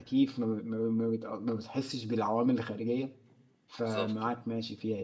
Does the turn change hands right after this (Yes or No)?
No